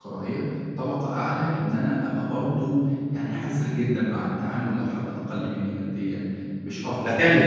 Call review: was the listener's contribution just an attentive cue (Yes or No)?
No